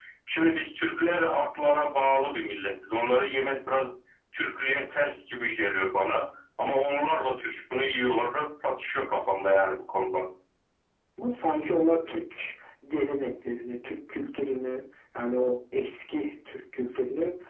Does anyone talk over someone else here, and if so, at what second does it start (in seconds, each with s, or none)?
none